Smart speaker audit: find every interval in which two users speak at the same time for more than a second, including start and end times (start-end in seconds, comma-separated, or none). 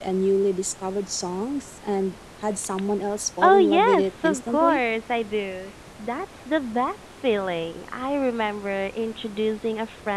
3.4-4.8